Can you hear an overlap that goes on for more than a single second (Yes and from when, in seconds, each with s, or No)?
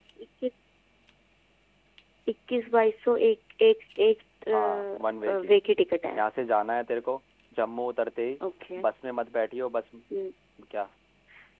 No